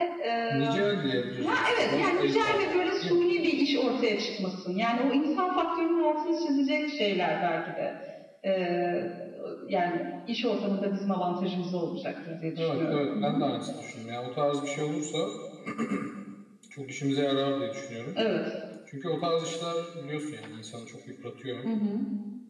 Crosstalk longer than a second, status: present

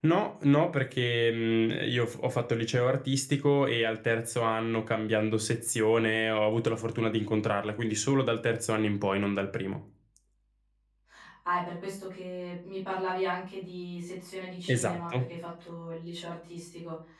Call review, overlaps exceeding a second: none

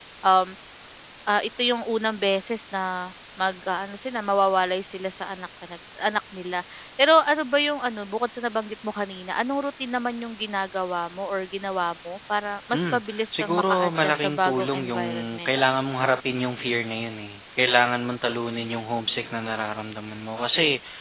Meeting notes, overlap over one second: present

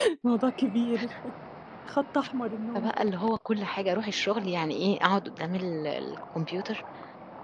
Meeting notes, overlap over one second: none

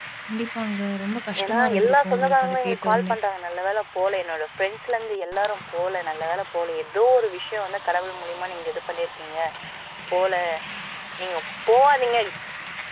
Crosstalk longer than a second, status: present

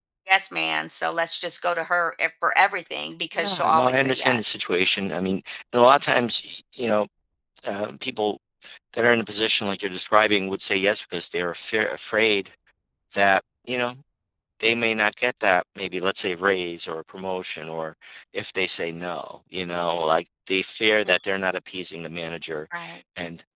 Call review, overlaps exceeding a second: present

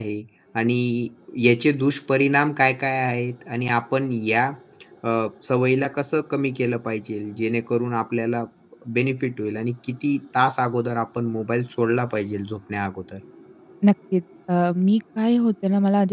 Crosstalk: none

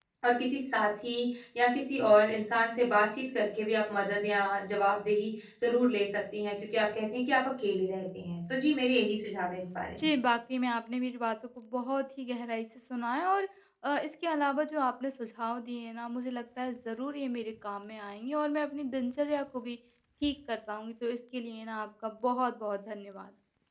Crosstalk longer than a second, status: none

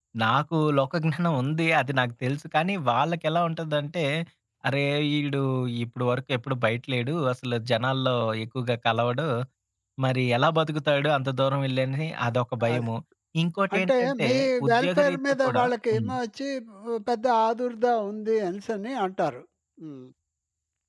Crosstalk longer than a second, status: present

